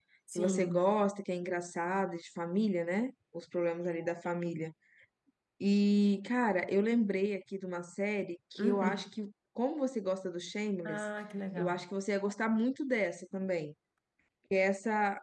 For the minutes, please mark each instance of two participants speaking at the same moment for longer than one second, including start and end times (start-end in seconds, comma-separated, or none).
none